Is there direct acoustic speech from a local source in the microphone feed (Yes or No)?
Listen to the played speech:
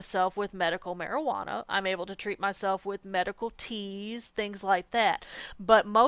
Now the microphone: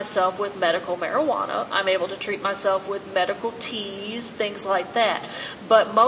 No